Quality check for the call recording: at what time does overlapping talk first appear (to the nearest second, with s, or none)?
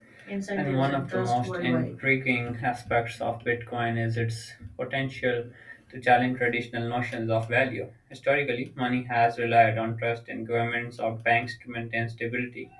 1 s